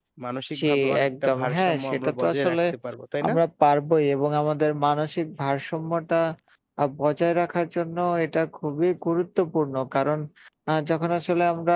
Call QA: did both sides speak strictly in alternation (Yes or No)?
No